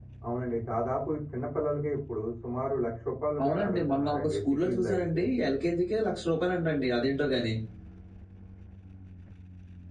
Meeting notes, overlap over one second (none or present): present